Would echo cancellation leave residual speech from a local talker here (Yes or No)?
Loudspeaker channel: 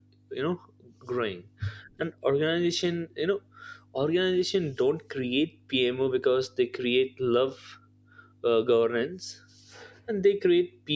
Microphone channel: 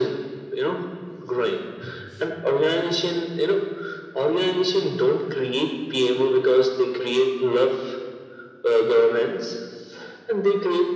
No